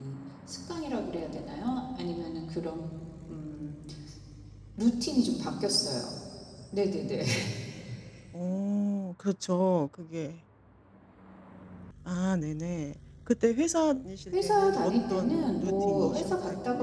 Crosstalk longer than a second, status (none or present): present